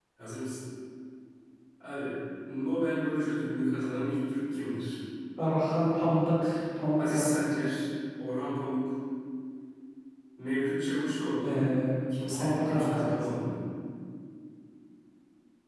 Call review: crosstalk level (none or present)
present